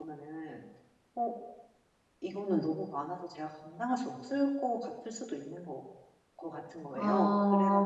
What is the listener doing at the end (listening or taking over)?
taking over